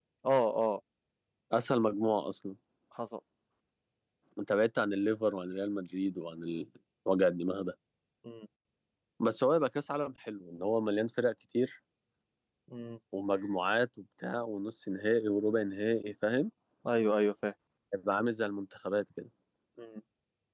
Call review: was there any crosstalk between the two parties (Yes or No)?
No